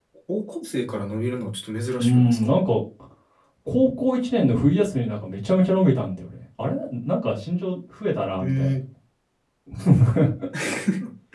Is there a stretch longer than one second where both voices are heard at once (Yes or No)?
No